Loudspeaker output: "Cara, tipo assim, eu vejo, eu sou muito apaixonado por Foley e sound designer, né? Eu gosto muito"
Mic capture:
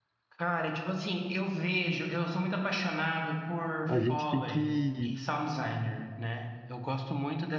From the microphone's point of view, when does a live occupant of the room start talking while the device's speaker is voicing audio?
3.9 s

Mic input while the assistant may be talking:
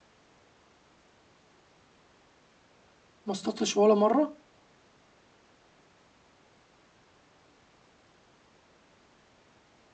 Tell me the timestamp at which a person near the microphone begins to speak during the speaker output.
3.3 s

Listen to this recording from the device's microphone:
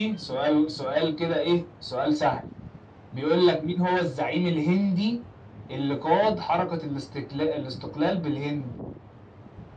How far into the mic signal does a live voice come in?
none

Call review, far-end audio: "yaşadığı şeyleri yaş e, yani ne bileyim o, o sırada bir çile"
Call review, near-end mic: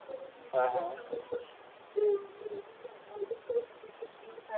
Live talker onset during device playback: 0.5 s

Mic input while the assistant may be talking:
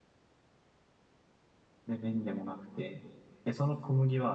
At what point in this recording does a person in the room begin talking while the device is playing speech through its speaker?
1.9 s

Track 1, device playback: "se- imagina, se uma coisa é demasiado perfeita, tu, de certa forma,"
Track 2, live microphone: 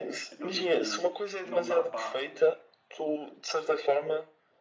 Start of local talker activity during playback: 0.3 s

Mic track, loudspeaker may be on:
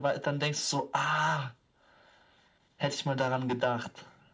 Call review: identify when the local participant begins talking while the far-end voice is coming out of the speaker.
none

